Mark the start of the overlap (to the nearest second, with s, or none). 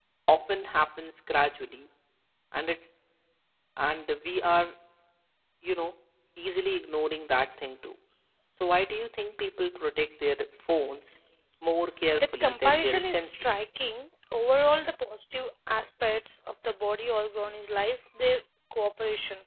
12 s